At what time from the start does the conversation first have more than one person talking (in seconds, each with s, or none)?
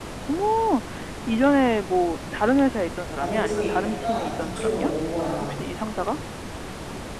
3.2 s